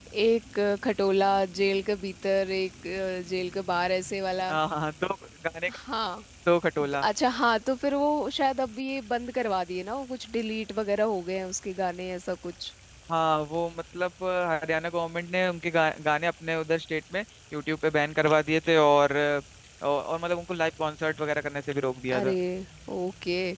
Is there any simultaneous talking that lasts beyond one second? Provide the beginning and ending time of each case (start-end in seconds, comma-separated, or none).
none